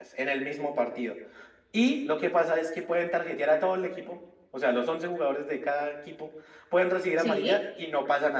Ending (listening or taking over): listening